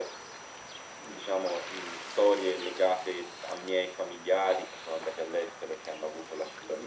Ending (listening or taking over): taking over